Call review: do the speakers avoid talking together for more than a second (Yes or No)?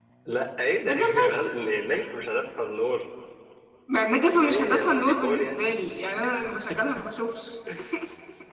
No